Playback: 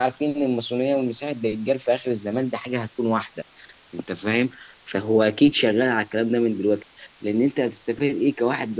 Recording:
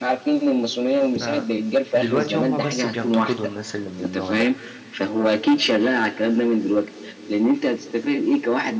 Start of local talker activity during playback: 1.2 s

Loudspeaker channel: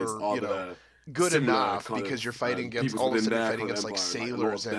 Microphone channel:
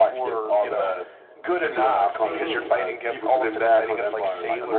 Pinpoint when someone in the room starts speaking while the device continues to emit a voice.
2.2 s

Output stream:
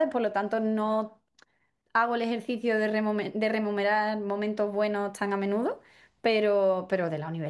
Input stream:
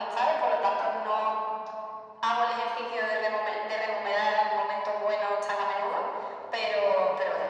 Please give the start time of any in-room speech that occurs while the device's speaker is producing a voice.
none

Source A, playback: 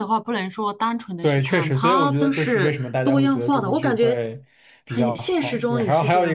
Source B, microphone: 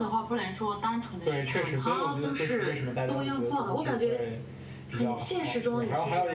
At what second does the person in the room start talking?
none

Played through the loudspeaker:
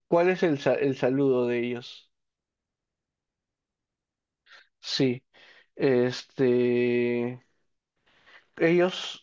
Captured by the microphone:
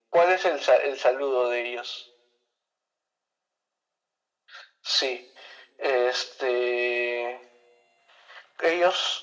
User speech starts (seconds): none

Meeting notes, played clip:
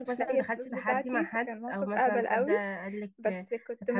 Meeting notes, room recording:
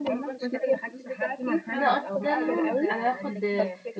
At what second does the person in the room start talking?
1.7 s

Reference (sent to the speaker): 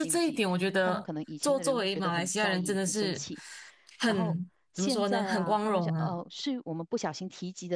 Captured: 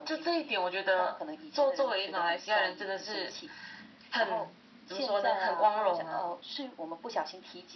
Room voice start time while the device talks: none

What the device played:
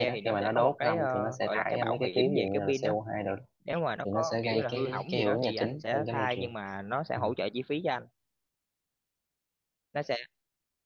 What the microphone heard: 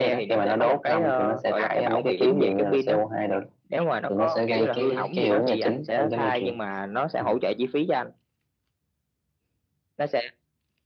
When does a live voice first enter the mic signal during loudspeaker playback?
none

